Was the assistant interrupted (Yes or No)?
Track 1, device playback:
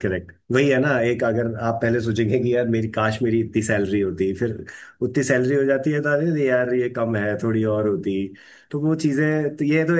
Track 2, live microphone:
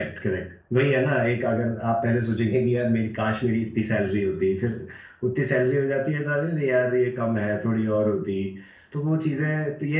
No